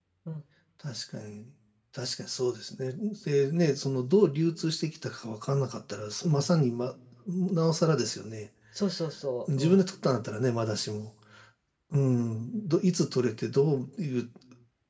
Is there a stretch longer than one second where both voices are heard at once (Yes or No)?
No